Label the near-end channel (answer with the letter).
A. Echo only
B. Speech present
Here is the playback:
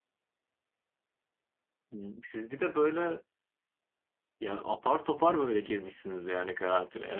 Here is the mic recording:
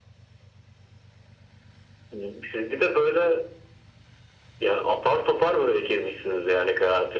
A